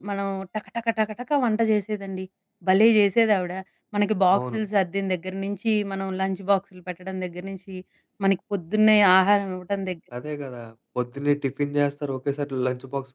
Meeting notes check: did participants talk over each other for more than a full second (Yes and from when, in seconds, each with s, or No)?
No